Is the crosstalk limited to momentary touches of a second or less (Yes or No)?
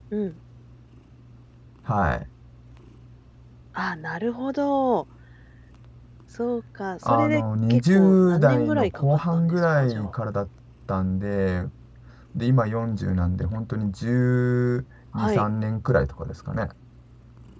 No